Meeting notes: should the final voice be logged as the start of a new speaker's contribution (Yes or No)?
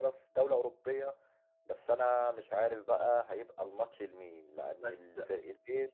No